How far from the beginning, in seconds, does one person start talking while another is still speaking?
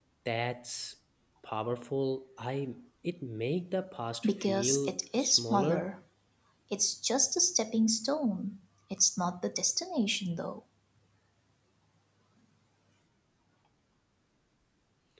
4.2 s

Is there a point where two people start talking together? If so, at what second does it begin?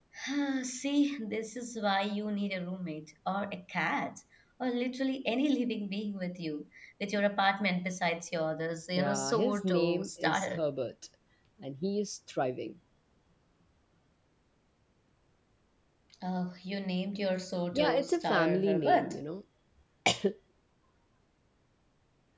9.0 s

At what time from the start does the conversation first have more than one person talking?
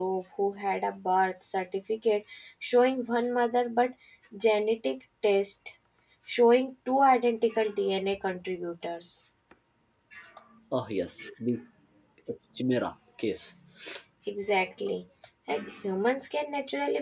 none

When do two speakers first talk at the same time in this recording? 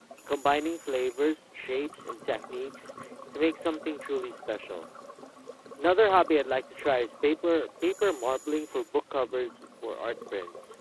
none

